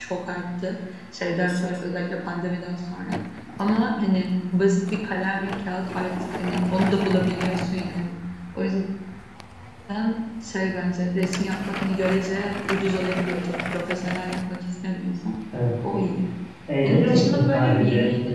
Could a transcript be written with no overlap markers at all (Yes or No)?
No